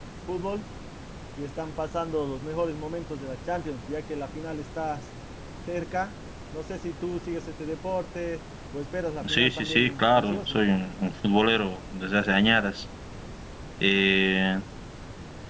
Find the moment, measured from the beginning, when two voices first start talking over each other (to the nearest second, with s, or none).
9 s